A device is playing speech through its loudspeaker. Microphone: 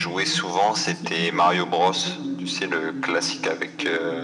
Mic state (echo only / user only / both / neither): both